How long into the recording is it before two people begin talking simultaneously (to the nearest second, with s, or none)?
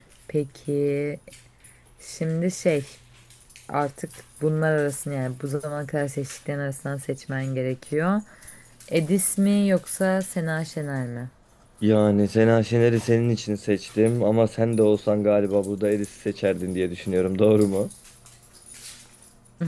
none